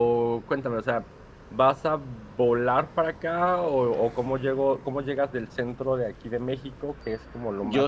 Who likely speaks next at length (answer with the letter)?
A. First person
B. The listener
B